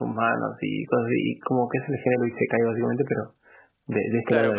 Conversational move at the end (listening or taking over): taking over